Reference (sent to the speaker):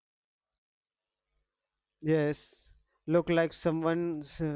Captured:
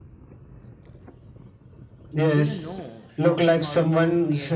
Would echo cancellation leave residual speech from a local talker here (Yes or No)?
Yes